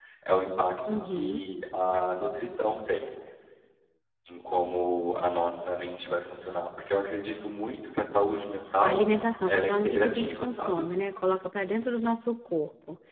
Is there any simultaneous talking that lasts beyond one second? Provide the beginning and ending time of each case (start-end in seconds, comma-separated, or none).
9.5-10.9